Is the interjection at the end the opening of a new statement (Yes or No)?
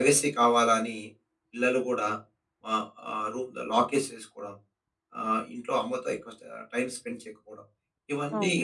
Yes